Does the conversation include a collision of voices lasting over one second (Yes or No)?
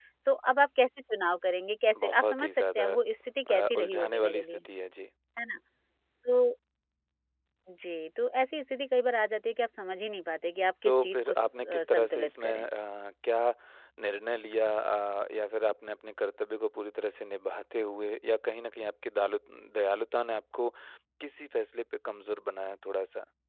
Yes